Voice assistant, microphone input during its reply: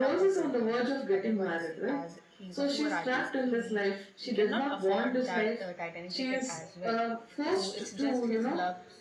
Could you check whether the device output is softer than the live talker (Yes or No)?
No